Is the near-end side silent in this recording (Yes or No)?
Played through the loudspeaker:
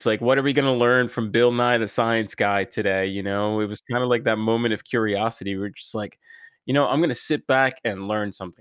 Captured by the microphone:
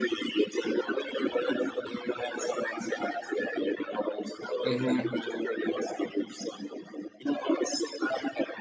No